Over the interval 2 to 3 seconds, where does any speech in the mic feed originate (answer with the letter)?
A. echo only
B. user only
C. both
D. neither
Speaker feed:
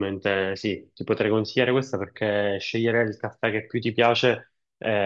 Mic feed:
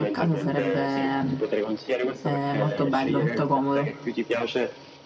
C